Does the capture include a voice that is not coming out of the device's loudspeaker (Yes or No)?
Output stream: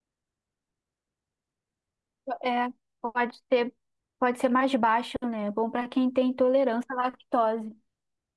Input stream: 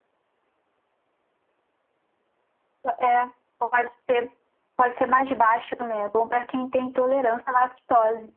No